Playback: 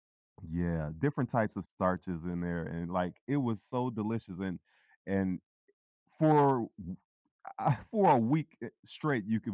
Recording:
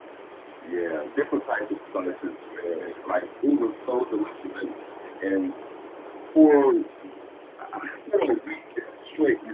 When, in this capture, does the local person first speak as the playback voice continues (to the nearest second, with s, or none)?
none